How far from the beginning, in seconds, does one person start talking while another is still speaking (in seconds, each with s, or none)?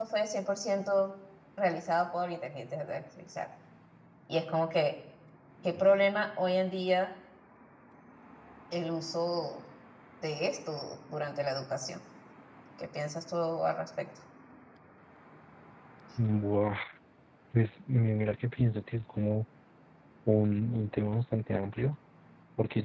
none